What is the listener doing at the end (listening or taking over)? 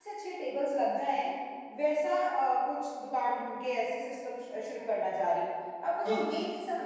listening